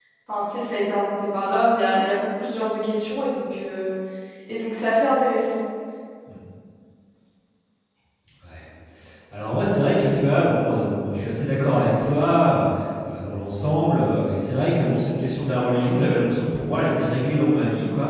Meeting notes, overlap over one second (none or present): none